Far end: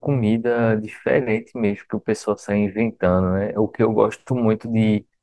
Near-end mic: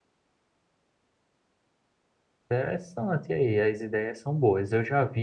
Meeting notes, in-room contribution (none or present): present